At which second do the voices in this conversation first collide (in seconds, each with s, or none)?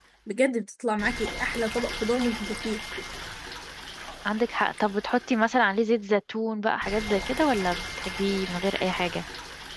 none